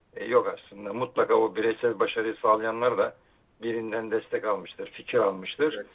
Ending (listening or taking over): listening